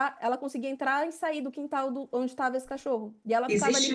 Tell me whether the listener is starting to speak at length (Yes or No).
Yes